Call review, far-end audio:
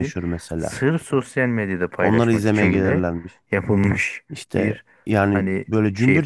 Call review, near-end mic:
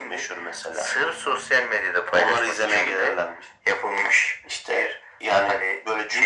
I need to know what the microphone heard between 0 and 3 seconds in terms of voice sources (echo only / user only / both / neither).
echo only